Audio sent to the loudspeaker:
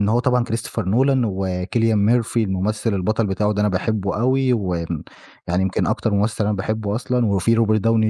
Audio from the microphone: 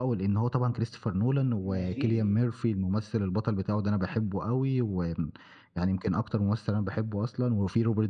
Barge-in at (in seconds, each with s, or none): 1.7 s